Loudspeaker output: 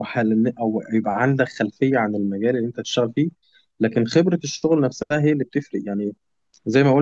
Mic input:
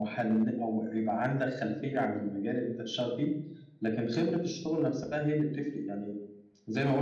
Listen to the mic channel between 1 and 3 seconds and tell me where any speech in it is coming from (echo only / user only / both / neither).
echo only